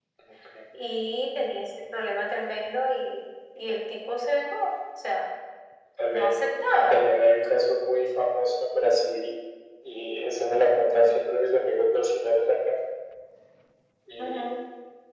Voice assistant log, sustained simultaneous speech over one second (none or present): none